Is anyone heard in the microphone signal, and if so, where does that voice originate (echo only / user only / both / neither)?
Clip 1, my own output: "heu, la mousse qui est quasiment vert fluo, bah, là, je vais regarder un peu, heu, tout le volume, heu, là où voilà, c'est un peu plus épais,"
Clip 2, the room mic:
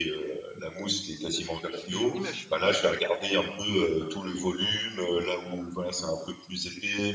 both